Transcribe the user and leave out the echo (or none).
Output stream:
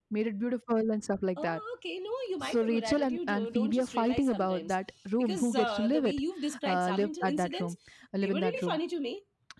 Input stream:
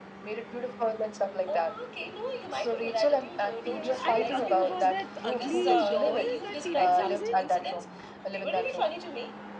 yeah are you talking about that ugly doll that phoebe brings in